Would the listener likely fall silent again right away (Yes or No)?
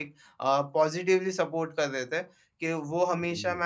Yes